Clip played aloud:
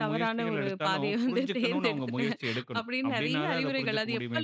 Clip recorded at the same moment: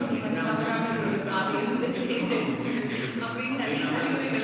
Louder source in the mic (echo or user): echo